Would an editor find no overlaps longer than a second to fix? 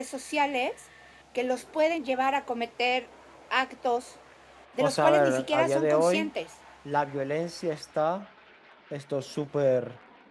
No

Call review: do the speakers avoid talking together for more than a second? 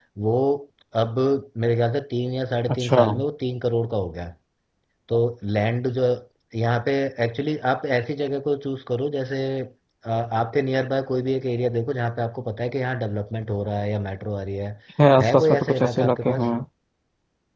No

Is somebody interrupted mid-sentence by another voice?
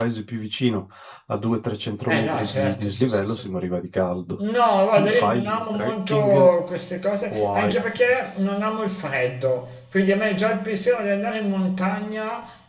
Yes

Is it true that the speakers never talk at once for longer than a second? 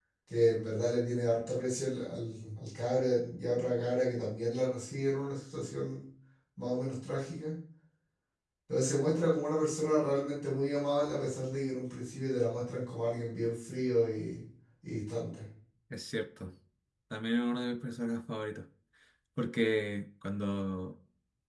Yes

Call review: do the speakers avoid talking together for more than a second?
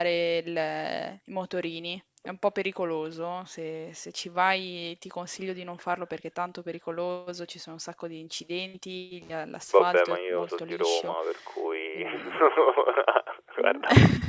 No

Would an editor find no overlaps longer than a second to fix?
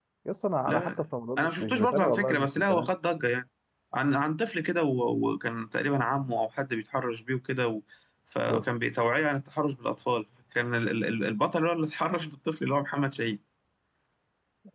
No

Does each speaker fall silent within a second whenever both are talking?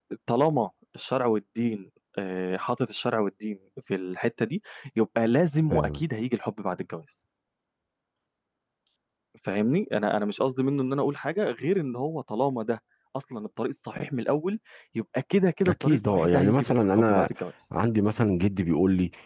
No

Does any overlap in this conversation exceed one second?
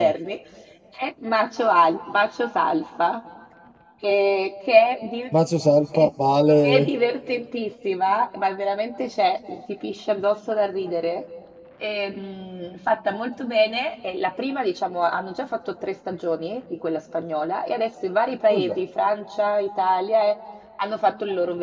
No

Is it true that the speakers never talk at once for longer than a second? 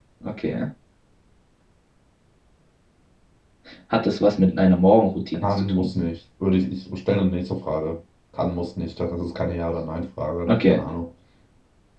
Yes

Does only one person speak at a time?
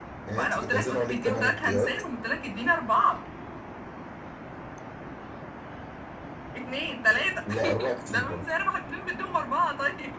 No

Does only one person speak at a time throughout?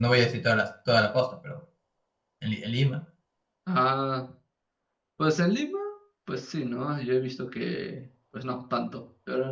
Yes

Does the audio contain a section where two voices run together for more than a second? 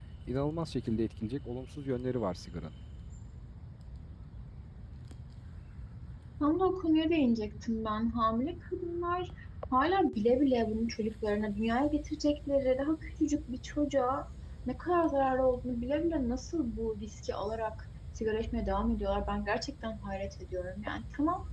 No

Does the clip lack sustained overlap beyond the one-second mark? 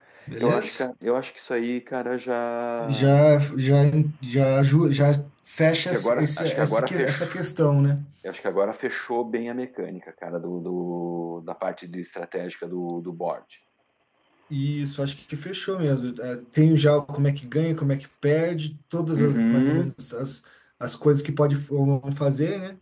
No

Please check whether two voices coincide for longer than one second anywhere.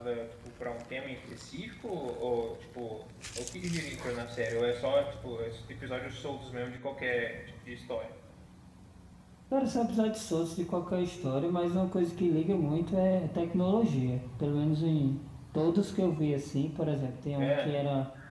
No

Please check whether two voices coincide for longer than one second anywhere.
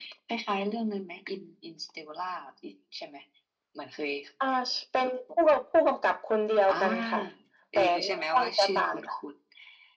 Yes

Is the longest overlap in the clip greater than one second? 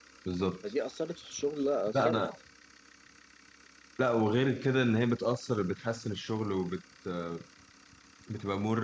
No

